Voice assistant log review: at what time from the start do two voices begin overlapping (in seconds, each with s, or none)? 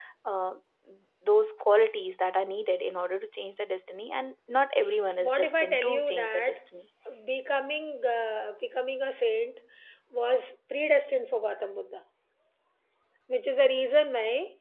5.2 s